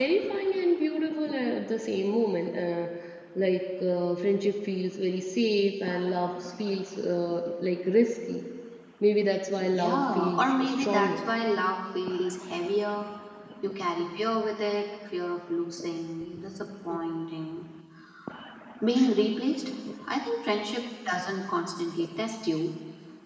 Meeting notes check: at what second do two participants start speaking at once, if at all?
9.7 s

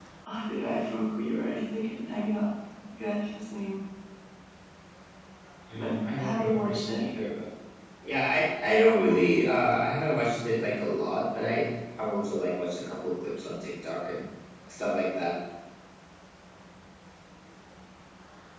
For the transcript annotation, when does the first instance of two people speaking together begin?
5.8 s

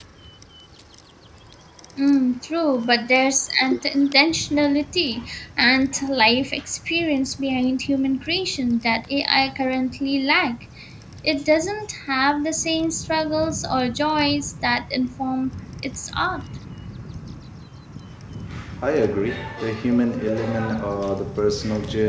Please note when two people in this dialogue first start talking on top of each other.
none

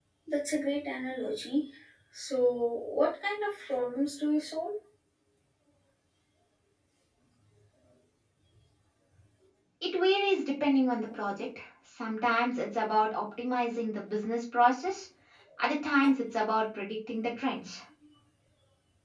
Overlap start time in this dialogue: none

